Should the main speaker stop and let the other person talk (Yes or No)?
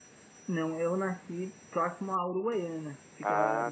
No